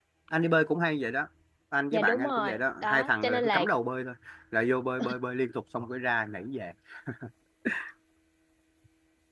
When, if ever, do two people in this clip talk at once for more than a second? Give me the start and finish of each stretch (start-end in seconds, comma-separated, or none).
1.9-3.6